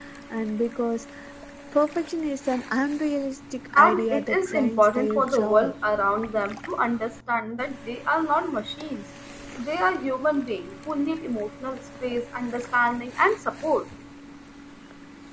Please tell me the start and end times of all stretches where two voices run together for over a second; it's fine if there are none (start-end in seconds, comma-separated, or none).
3.8-5.7